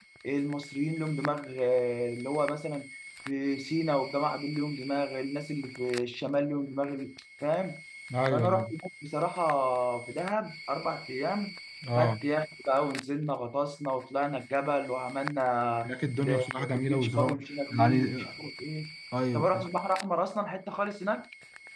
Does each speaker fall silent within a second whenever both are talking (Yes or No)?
No